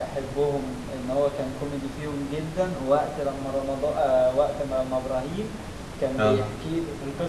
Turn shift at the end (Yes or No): No